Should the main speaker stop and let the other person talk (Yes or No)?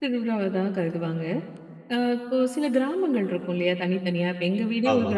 No